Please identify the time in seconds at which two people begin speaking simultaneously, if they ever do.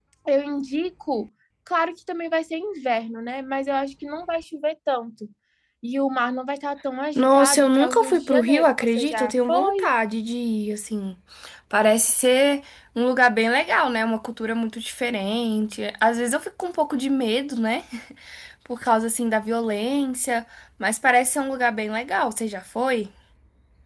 7 s

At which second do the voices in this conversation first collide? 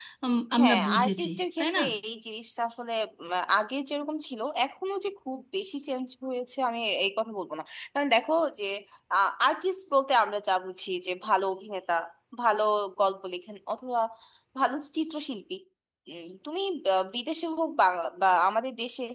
1 s

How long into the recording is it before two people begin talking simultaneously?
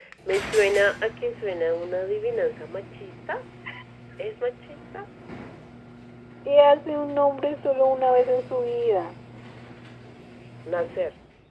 none

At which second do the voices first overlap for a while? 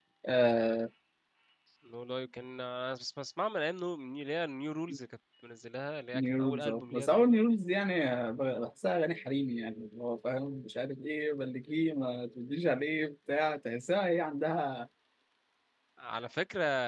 6 s

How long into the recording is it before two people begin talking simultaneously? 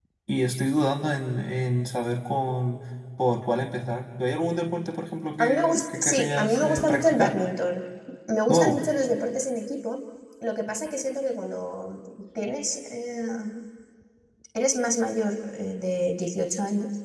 5 s

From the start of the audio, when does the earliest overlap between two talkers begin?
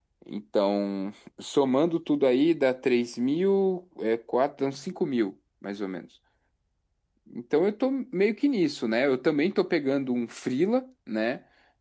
none

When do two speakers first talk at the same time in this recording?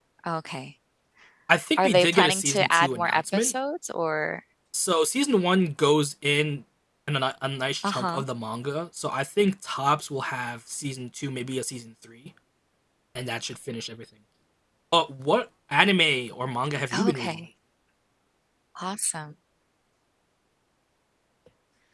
2 s

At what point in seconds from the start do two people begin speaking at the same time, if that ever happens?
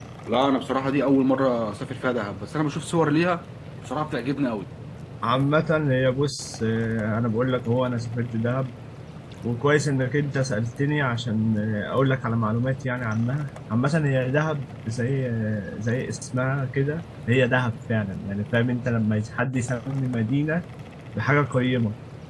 none

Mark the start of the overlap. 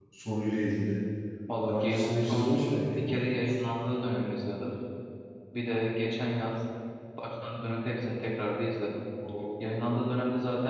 2 s

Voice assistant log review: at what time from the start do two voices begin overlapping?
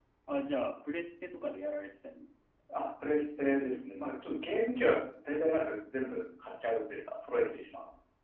none

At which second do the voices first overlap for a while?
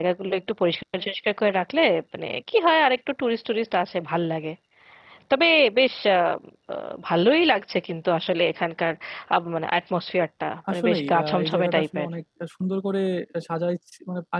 11 s

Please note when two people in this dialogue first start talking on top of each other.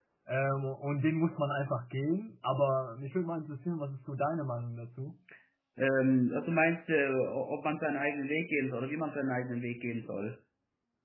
none

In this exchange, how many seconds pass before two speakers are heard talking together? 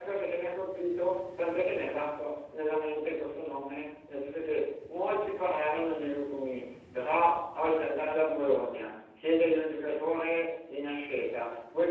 none

